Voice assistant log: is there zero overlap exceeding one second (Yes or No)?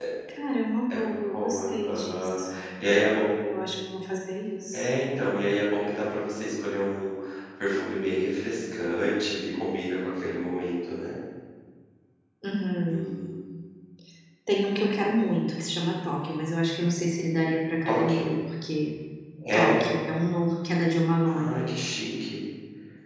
No